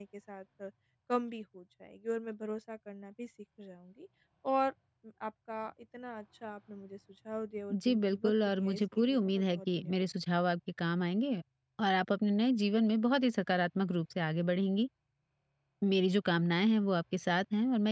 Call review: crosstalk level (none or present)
present